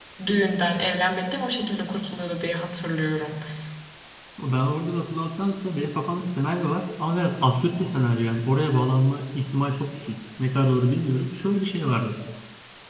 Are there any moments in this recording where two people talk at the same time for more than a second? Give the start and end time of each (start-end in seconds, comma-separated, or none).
none